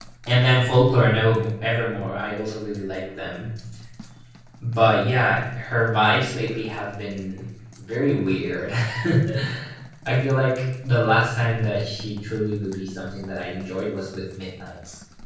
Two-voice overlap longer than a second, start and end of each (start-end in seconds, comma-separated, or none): none